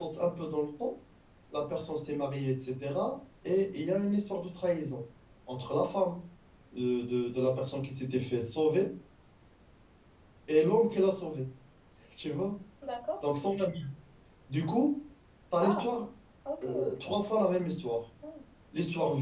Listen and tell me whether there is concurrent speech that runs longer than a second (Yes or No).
No